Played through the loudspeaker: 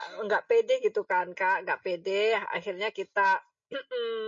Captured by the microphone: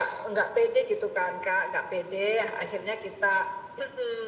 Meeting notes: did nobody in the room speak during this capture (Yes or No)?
Yes